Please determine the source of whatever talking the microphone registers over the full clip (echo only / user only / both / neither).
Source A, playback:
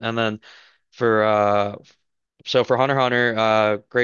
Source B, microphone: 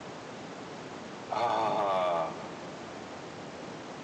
user only